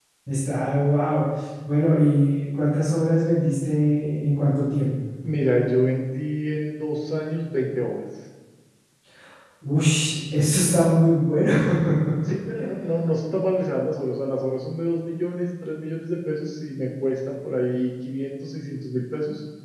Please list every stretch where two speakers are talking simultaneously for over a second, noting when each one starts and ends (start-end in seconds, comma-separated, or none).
none